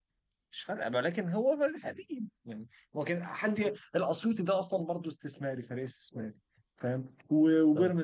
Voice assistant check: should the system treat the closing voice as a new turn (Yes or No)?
No